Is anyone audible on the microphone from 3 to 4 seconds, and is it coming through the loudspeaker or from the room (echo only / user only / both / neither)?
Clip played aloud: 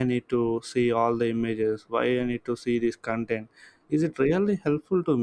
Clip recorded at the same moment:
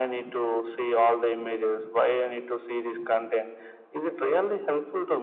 echo only